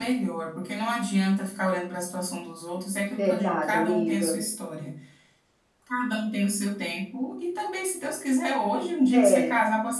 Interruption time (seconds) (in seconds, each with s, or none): 3.2 s